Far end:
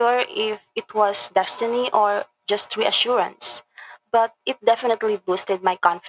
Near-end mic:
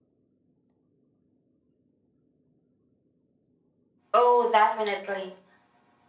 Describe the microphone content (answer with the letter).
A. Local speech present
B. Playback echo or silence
A